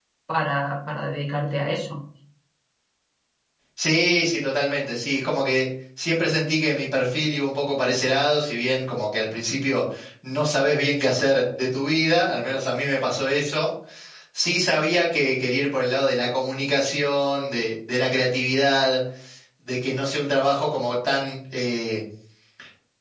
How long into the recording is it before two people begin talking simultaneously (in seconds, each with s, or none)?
none